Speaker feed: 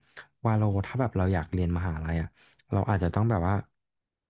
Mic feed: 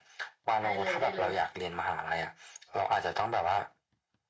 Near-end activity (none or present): present